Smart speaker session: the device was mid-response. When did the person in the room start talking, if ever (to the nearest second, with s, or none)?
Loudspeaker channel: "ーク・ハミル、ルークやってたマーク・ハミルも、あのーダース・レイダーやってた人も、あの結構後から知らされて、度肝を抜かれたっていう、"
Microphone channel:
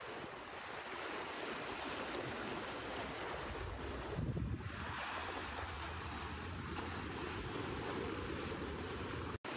none